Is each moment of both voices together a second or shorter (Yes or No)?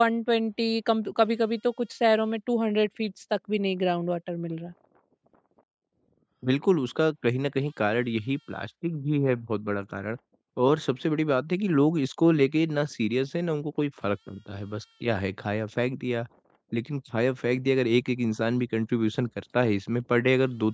Yes